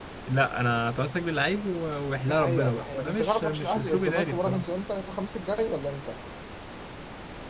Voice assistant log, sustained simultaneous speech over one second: present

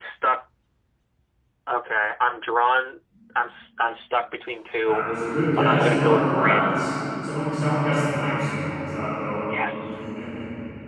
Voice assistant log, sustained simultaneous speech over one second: present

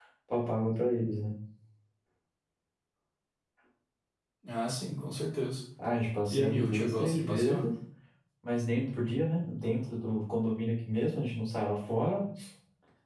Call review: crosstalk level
present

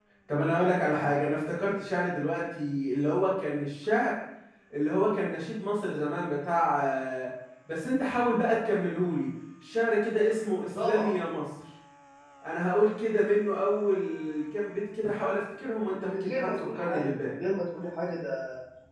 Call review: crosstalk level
present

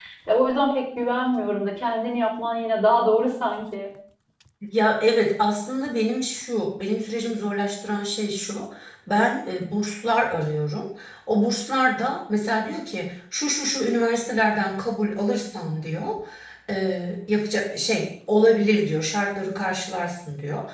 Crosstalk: none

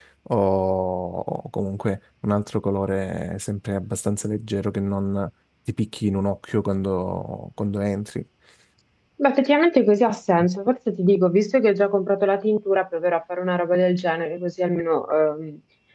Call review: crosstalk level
none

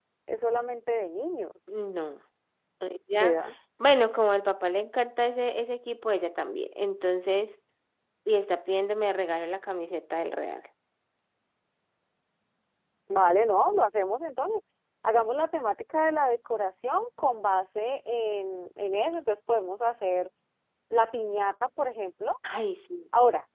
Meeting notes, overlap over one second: none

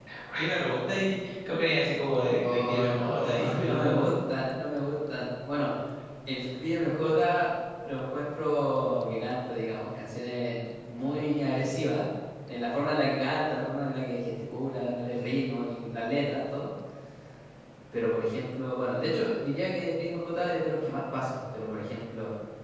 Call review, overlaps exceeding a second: present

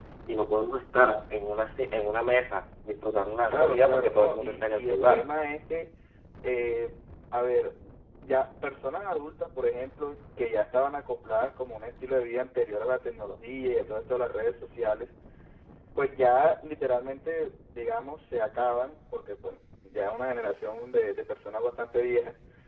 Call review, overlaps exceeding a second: present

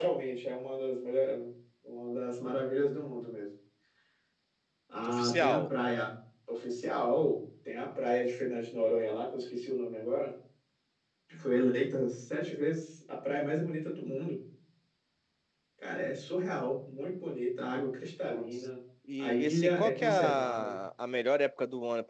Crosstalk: present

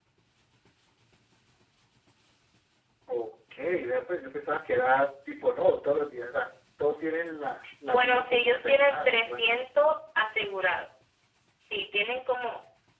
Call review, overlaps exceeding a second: present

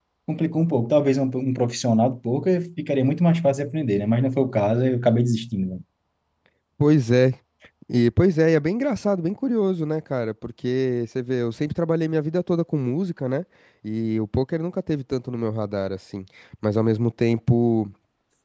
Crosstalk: none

